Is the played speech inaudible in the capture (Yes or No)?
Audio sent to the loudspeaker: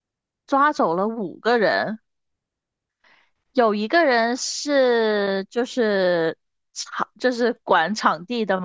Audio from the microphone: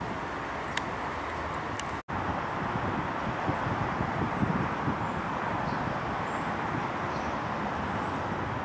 Yes